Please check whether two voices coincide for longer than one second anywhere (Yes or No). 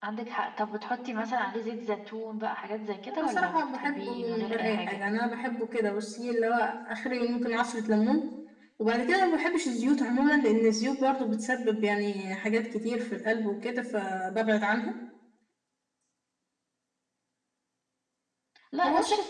Yes